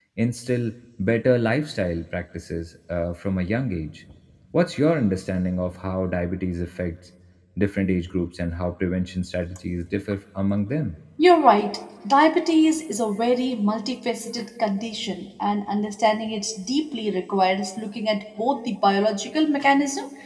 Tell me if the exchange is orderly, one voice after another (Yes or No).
Yes